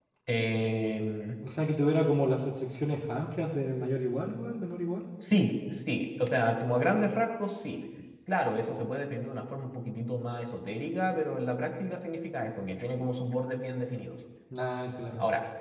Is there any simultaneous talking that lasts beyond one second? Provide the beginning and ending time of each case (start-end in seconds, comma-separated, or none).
none